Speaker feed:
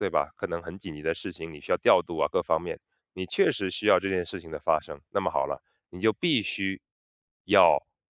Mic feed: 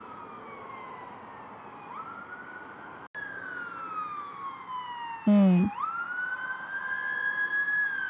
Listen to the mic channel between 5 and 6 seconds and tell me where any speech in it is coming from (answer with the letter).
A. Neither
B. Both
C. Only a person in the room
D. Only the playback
C